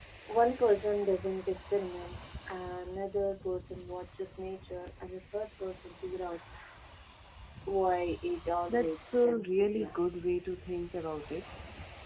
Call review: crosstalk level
present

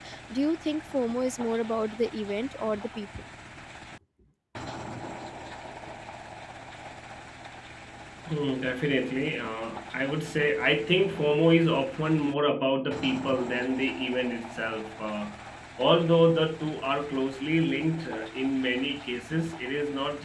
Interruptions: none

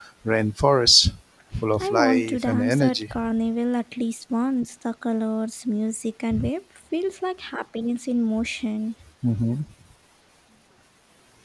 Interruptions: present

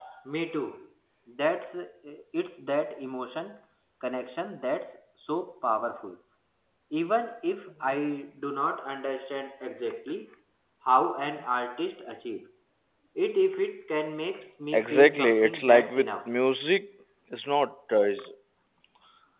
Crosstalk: present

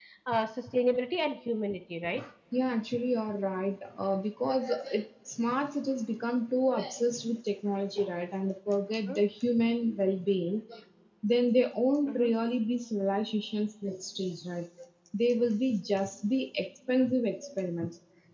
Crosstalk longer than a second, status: none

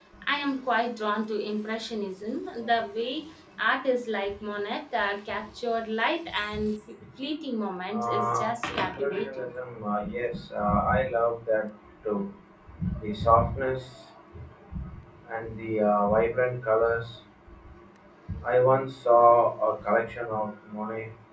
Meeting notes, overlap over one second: present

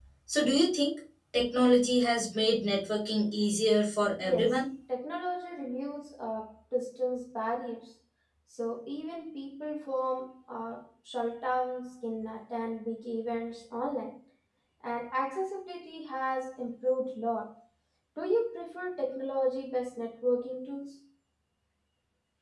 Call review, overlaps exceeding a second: none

